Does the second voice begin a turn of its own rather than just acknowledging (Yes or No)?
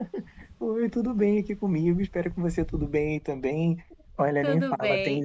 No